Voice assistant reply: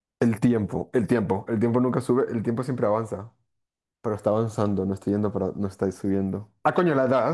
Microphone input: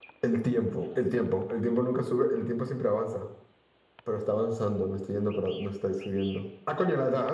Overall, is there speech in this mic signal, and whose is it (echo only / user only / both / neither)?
echo only